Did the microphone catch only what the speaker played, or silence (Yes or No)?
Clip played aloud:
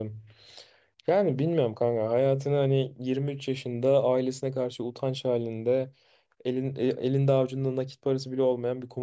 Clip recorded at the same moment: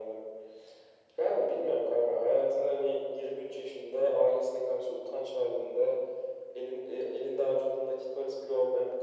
Yes